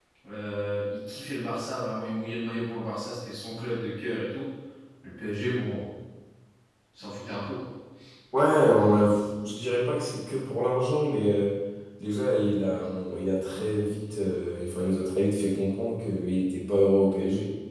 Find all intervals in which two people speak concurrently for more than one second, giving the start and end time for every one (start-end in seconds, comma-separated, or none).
none